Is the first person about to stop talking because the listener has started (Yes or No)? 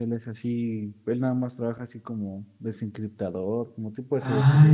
Yes